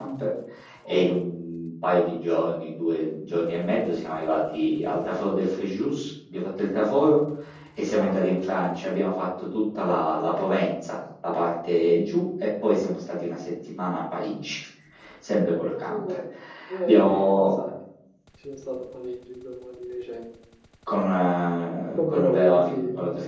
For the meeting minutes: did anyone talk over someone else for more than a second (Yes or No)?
Yes